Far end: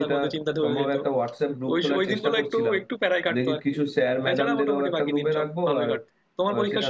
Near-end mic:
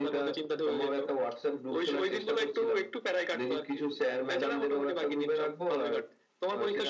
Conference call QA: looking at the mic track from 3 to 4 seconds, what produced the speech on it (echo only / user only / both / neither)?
echo only